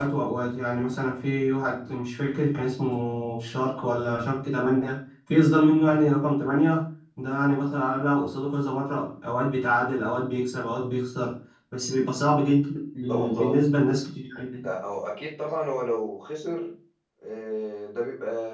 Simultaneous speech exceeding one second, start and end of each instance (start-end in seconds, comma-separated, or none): none